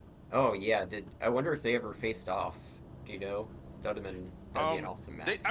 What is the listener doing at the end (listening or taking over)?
taking over